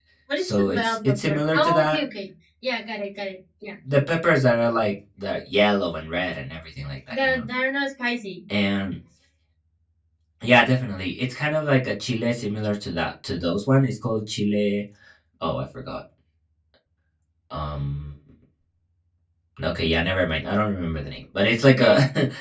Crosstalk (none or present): present